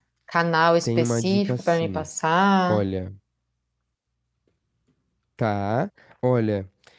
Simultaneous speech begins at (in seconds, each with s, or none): 0.8 s